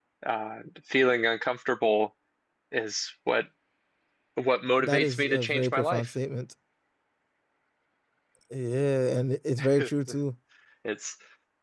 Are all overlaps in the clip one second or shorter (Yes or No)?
No